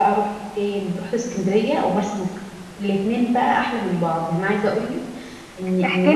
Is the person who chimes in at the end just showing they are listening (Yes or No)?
No